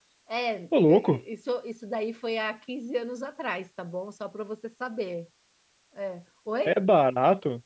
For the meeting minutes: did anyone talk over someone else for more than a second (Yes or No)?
No